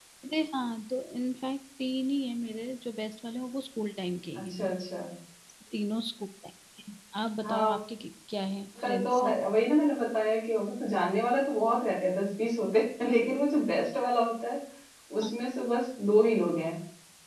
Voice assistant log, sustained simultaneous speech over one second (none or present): none